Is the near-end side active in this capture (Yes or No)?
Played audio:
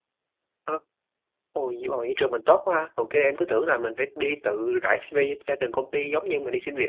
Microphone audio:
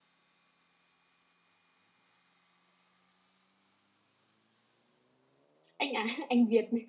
Yes